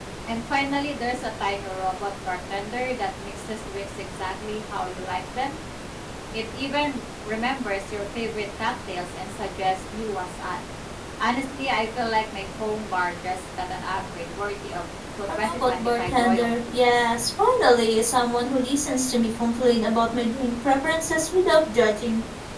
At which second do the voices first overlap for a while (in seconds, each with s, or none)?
15.3 s